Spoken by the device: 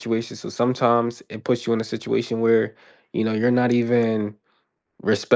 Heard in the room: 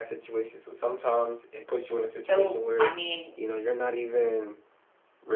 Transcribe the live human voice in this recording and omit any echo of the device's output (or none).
So, I mean,